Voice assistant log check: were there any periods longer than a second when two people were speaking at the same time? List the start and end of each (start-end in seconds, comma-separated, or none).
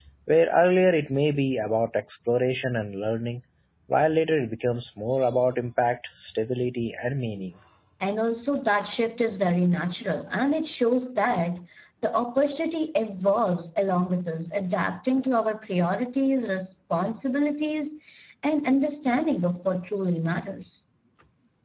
none